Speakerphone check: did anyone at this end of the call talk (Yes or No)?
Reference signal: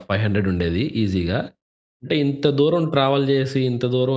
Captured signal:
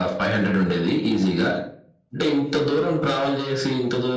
No